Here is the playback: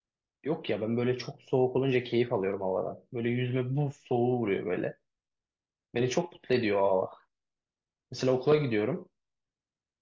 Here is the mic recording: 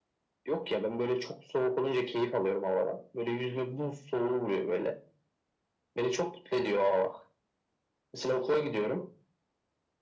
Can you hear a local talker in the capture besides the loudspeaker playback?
No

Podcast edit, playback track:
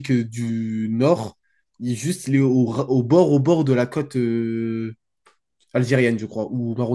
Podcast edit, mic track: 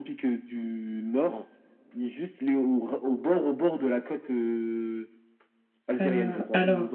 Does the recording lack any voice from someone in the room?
No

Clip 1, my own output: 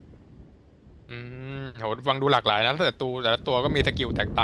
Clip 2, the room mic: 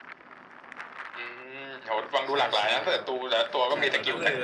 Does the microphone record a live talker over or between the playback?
Yes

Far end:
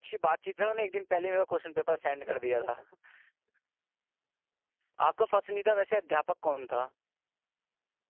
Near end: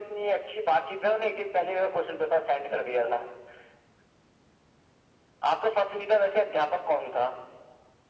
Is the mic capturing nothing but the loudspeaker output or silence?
Yes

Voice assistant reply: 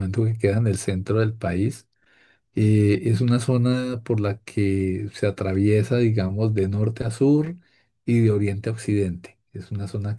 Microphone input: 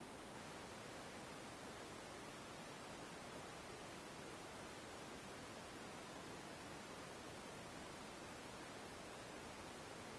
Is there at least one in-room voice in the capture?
No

